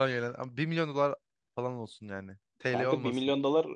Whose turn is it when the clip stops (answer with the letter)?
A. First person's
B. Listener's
B